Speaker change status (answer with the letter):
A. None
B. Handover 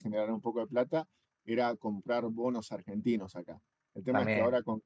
A